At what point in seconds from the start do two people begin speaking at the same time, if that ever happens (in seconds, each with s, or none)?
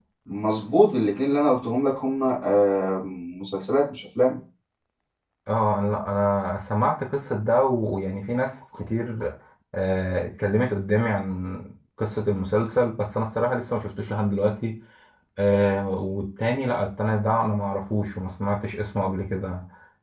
none